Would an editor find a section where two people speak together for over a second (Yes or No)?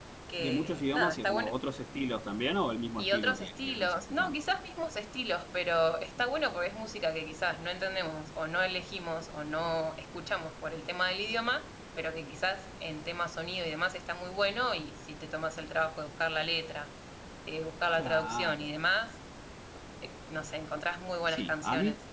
Yes